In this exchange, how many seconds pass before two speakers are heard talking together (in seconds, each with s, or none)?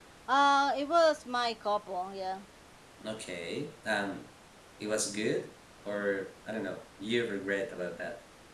none